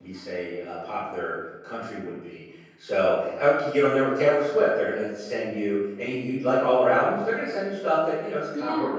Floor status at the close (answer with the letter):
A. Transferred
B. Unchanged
B